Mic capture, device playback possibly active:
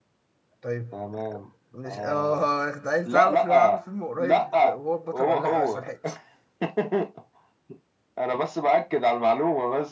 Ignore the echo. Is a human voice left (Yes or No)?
Yes